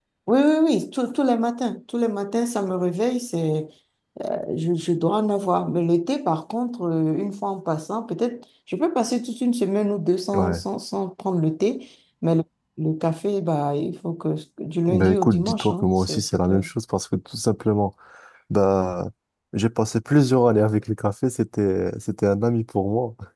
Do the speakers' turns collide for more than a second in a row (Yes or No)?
Yes